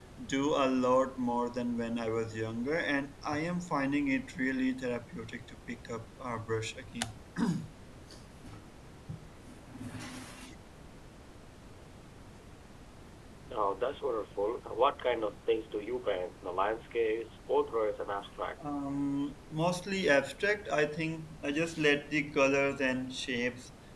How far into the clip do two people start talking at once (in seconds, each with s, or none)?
none